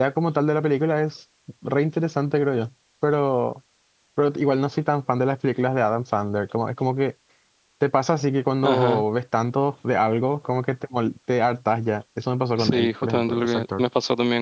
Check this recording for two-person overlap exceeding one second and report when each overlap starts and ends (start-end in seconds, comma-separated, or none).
12.6-13.8